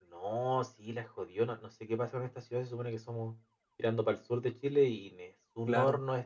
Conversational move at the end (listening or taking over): listening